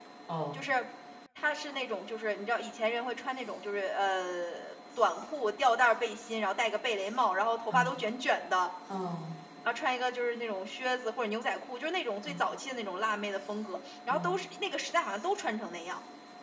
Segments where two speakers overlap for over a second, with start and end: none

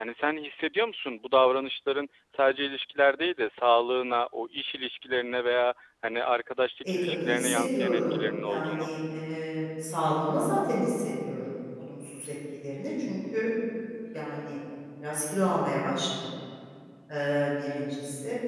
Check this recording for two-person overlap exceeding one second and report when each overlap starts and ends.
6.8-8.9

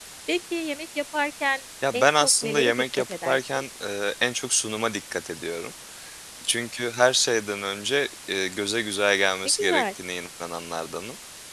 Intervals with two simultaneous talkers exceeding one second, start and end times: 1.9-3.6

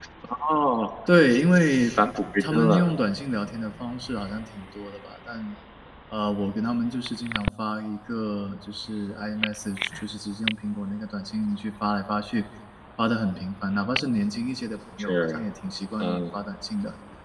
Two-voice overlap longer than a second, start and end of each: none

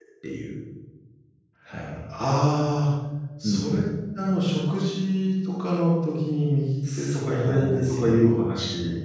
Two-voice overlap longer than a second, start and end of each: 7.0-8.3

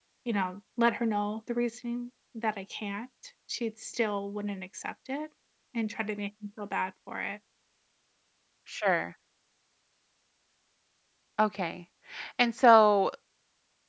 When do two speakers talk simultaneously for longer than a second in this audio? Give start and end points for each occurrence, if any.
none

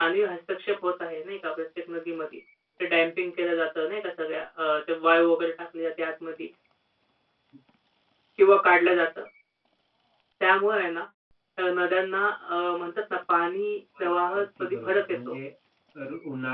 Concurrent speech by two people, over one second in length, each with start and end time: 14.0-15.3

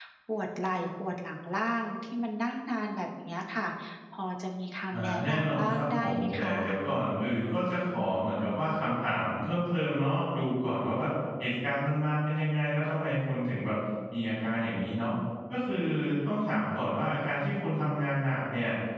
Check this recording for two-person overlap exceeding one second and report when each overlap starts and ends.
4.9-6.6

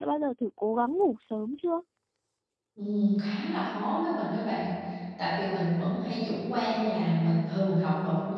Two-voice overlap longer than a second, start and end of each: none

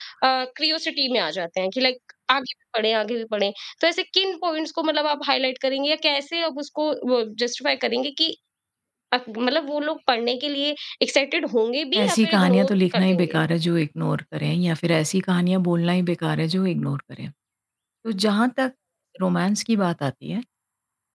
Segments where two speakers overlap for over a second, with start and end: 12.0-13.4

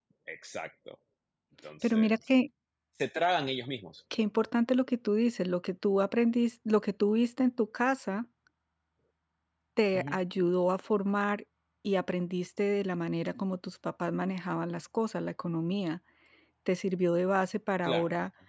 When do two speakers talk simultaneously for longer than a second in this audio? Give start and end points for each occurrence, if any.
none

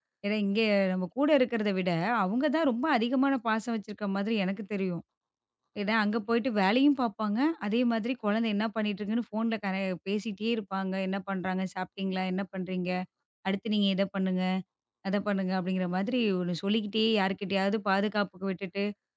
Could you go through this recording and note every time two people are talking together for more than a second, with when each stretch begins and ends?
none

